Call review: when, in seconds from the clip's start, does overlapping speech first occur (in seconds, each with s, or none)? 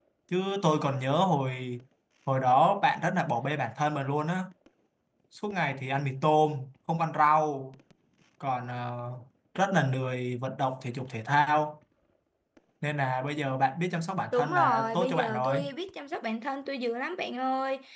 14.3 s